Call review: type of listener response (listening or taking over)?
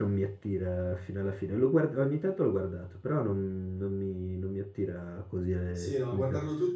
taking over